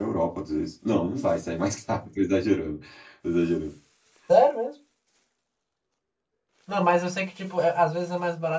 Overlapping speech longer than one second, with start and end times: none

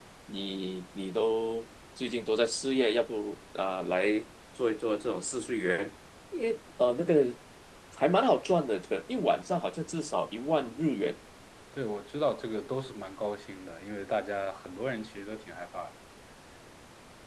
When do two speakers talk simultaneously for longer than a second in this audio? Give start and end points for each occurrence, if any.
none

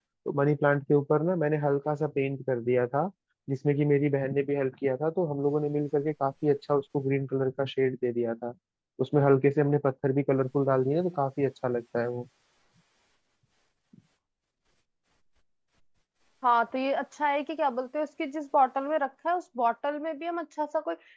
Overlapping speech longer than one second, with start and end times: none

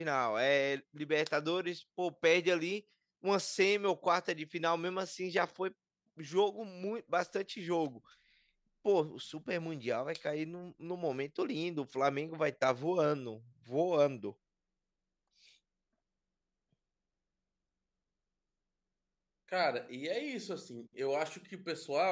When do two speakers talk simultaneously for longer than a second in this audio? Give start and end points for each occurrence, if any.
none

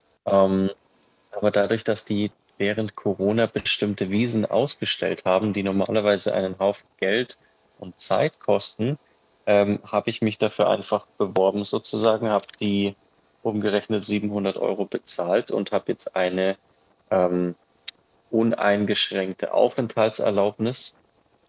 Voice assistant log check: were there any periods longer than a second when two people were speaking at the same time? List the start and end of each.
none

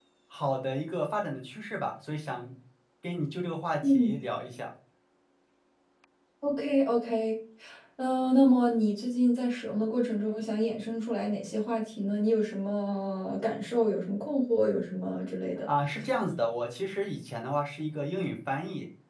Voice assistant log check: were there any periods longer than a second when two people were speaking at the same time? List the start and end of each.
none

